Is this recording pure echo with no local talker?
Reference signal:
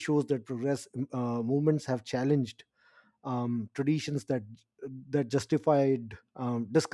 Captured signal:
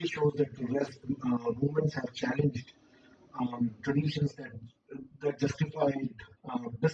Yes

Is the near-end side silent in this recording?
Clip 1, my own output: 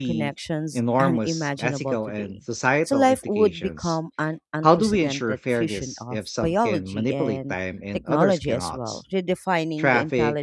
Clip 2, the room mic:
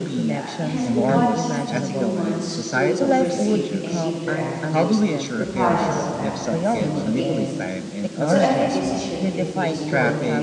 No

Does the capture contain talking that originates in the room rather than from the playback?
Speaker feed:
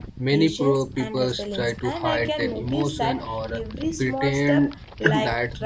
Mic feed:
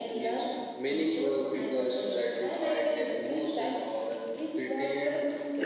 No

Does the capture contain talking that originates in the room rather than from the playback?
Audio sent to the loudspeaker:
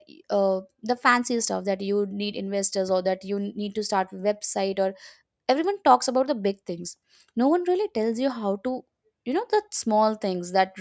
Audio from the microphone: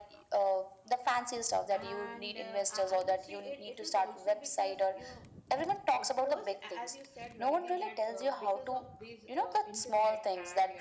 Yes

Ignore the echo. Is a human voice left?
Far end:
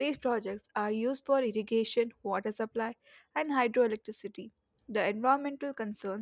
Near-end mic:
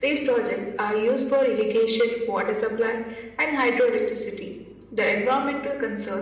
No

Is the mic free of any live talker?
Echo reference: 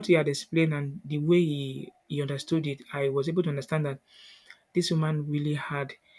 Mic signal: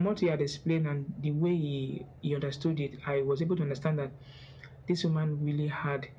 Yes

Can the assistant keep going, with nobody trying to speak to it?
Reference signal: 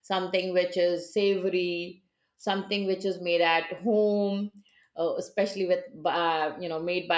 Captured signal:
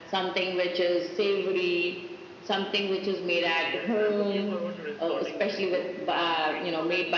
No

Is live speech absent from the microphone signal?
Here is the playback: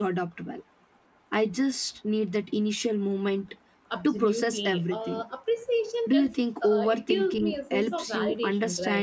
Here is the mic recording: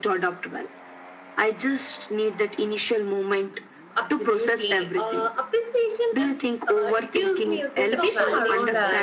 No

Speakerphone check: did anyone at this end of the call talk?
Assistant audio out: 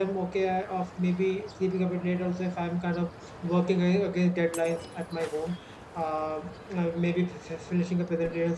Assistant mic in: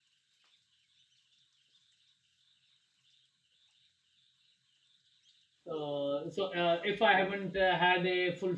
Yes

